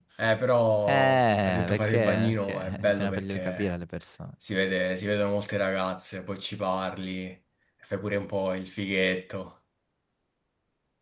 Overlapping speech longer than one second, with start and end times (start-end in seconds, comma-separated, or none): 0.9-3.7